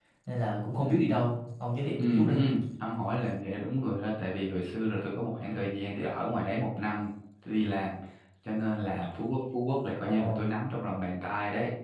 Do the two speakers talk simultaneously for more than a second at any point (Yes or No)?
No